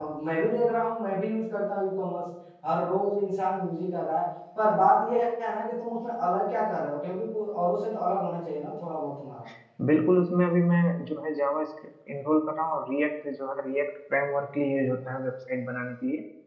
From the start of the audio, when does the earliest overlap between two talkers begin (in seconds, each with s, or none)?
none